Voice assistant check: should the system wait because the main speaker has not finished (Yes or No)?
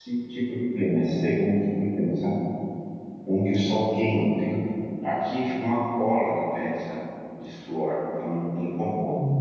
No